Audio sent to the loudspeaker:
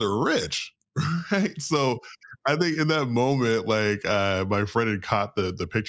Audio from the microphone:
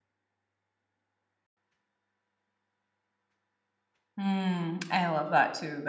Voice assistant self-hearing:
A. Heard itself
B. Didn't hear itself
B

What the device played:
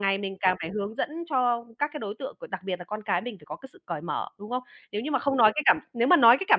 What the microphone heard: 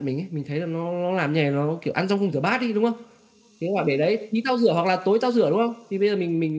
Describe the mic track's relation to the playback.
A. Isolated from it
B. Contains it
A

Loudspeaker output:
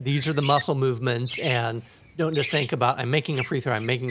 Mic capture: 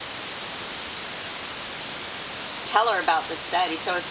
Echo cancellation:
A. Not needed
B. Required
A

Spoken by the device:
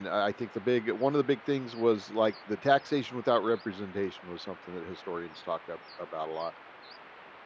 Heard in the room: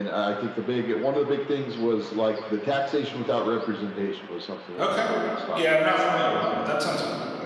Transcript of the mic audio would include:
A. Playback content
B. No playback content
A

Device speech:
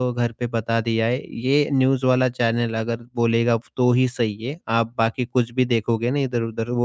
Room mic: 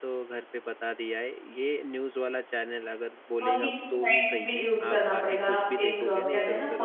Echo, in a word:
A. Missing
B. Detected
B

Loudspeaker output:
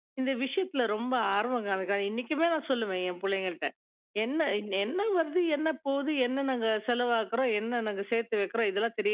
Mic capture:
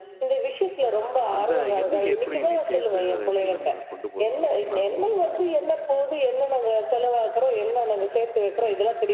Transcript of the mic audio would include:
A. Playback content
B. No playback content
A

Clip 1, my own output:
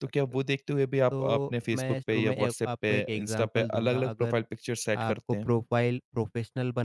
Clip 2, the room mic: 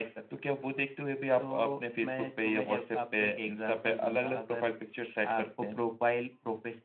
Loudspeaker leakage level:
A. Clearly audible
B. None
A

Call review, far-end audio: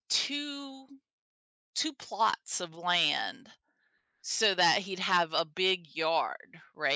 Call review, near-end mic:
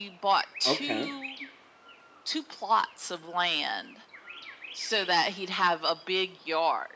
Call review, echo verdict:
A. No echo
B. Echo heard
B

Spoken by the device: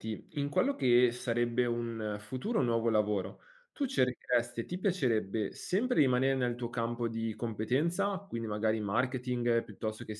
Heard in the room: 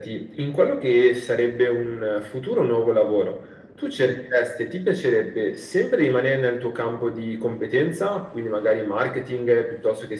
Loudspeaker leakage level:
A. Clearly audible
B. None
A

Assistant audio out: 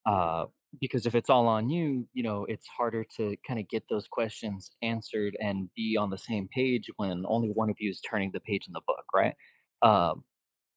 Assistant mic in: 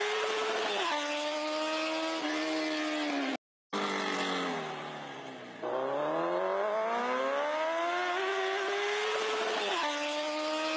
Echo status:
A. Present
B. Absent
B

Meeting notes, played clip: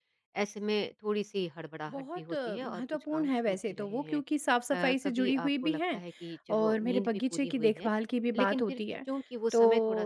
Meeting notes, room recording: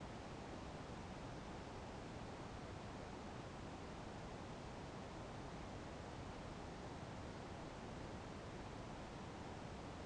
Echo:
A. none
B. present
A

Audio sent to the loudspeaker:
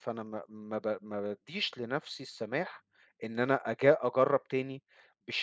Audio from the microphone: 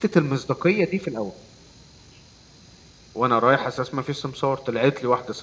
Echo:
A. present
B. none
B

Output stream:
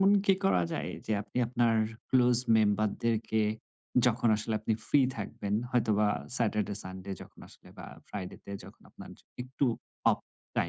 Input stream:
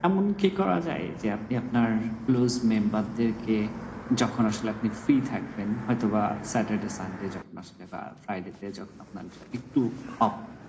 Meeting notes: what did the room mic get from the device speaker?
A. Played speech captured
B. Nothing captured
A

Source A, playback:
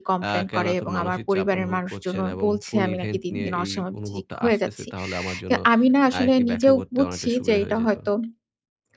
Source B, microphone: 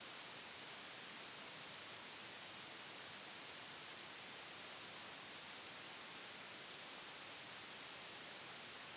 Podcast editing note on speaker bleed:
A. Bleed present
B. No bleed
B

